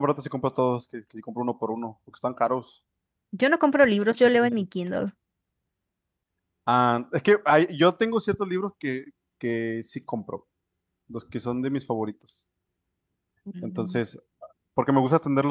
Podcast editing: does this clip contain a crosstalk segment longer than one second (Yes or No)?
No